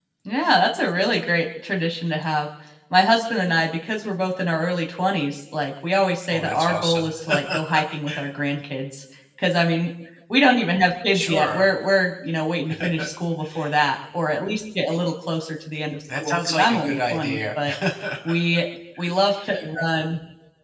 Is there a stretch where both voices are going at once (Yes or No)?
Yes